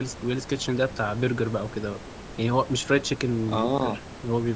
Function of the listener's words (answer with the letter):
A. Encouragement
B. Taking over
A